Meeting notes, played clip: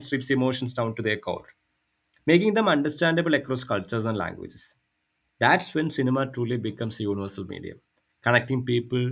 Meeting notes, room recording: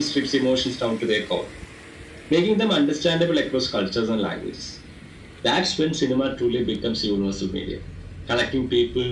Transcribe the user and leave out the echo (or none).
none